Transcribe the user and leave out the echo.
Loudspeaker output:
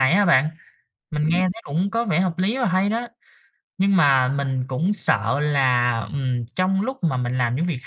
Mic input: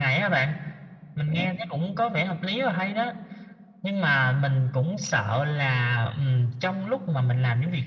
none

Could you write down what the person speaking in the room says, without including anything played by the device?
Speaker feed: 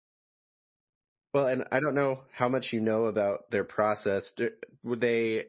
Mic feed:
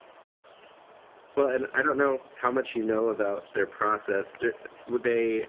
none

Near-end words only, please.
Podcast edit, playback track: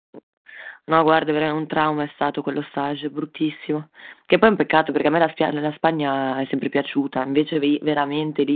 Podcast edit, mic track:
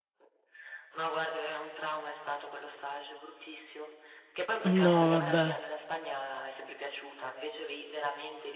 No, vabbè.

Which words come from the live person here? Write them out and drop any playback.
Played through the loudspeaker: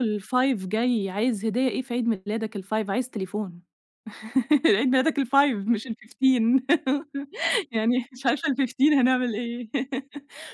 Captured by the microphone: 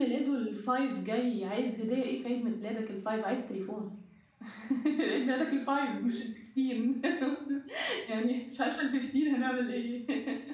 none

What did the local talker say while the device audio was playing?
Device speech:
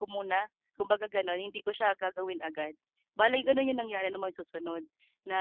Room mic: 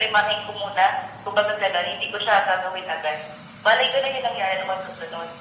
none

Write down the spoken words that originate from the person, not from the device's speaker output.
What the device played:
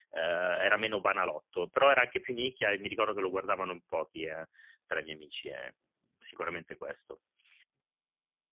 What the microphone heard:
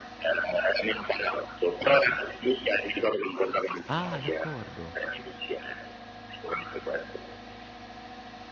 Ah, d'accordo.

